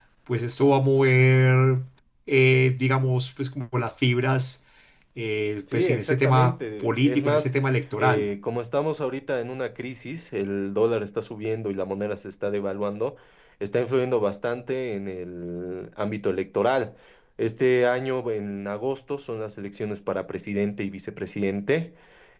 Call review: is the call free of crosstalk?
No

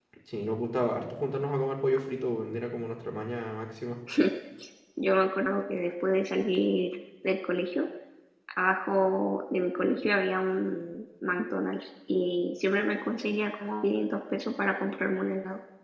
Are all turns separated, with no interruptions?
Yes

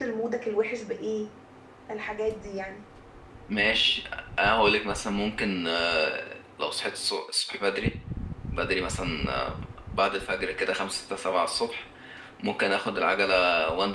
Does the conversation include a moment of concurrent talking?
No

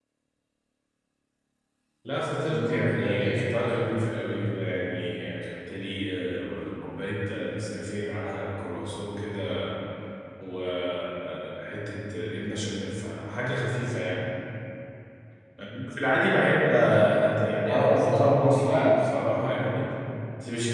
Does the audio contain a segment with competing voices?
Yes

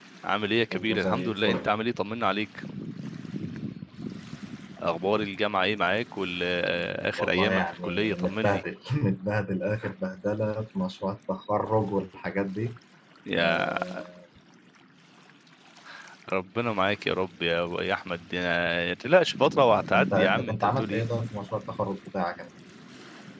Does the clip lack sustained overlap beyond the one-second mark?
No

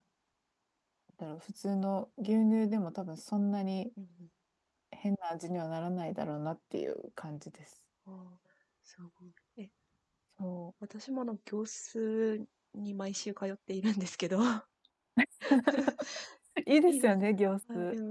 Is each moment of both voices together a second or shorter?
Yes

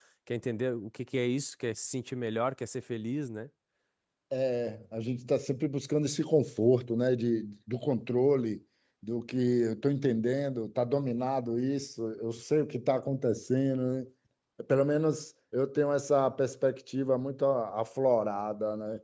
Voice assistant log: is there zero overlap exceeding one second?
Yes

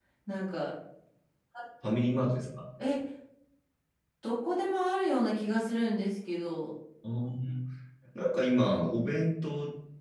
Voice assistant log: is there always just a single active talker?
Yes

